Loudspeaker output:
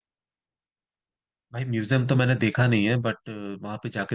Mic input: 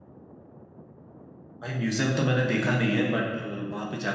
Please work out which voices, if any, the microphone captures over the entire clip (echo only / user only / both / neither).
echo only